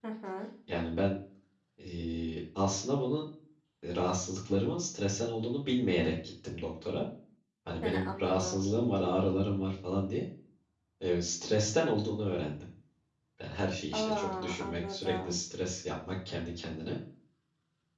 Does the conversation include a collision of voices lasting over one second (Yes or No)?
Yes